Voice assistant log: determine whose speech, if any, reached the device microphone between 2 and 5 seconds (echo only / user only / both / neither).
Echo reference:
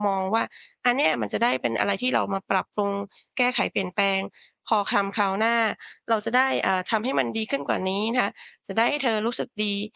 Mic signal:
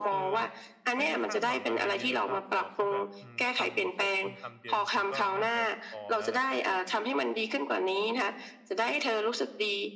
both